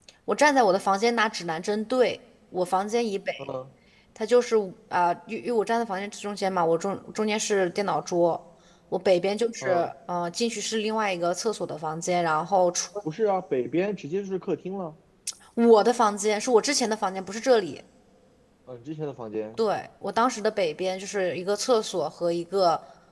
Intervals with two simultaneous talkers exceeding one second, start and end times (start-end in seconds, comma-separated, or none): none